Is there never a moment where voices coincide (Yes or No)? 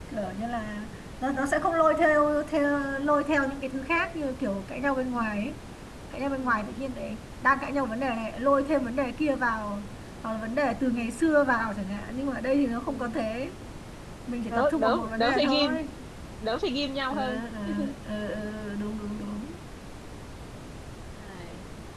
No